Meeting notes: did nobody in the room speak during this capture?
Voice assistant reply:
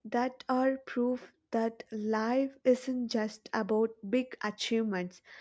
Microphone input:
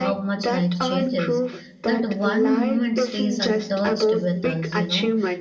No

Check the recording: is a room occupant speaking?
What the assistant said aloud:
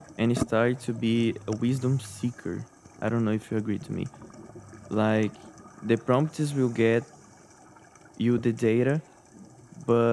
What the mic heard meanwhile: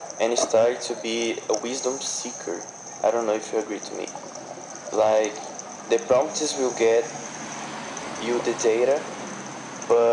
No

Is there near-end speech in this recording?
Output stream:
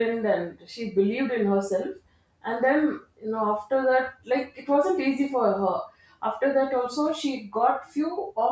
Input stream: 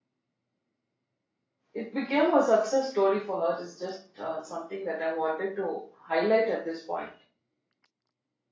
Yes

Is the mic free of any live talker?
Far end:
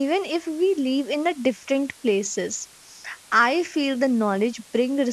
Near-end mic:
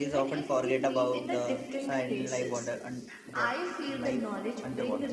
No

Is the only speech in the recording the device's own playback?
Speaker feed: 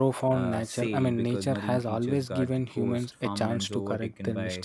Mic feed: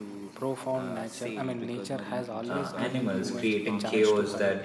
No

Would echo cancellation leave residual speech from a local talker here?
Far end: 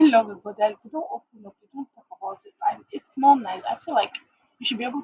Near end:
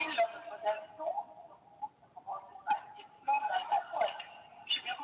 No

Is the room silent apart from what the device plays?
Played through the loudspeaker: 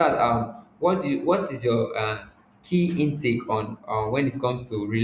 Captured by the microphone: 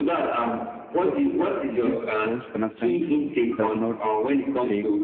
No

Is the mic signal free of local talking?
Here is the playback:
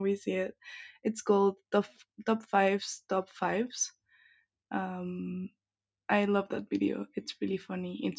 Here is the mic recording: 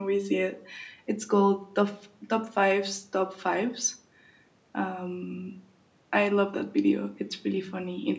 Yes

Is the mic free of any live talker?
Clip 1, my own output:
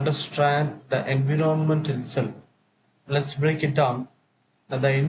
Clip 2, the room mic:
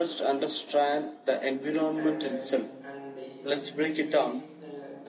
No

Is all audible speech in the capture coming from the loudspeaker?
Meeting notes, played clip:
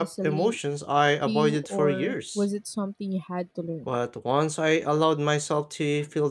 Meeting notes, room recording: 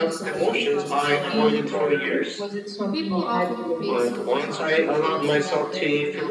No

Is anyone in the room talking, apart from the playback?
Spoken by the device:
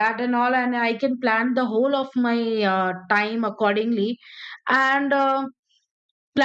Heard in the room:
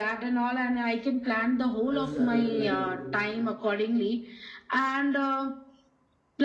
Yes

